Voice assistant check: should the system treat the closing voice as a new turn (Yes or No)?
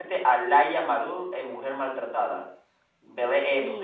No